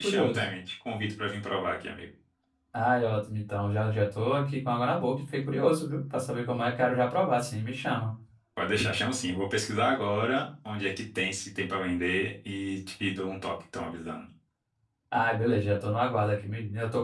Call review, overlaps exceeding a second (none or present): none